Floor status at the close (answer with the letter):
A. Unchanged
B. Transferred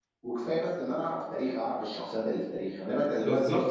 B